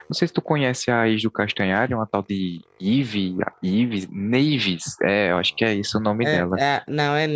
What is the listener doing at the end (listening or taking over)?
taking over